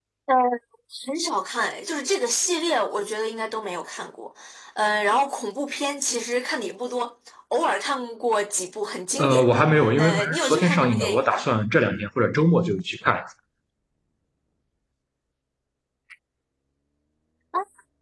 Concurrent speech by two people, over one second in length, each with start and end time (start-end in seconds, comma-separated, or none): 10.0-11.4